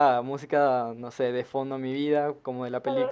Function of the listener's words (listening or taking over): taking over